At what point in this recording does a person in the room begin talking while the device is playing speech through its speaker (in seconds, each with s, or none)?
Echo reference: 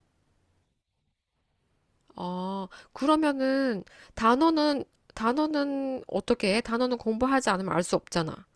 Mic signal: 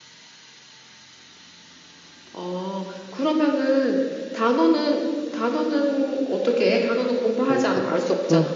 7.5 s